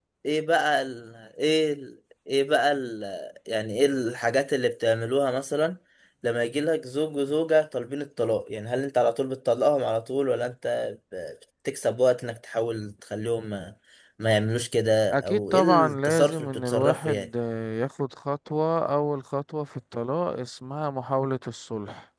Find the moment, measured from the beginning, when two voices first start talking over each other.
15.1 s

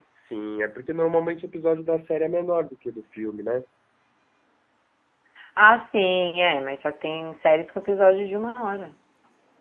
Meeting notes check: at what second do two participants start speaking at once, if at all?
none

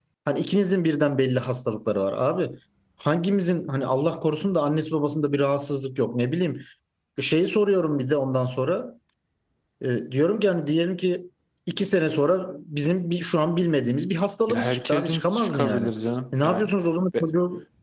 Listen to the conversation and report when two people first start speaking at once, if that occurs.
14.5 s

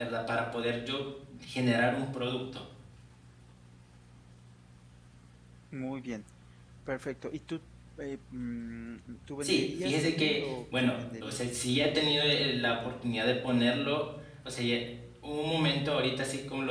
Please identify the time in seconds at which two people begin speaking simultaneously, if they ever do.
9.4 s

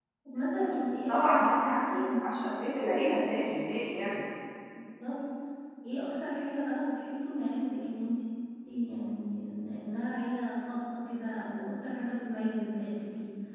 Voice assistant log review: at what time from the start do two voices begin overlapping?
1.1 s

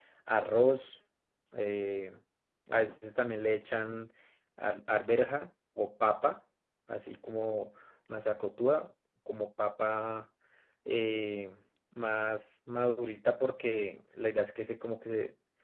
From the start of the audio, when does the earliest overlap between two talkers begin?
none

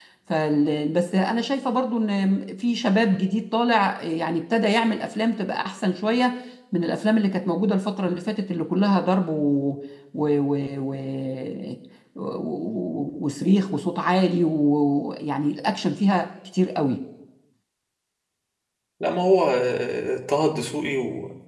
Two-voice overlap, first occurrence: none

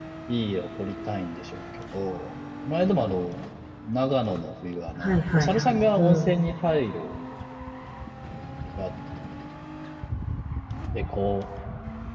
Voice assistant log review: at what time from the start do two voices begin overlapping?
5.0 s

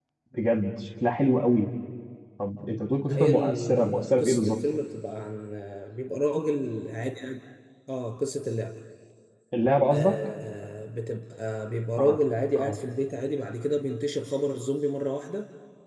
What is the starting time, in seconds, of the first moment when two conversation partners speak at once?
3.1 s

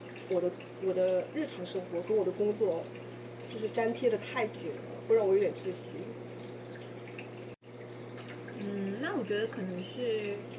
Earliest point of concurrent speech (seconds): none

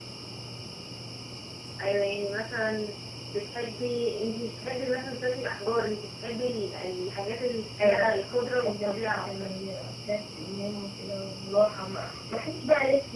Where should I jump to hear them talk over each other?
7.8 s

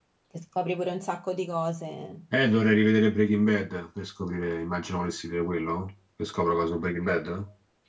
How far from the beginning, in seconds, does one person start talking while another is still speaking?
none

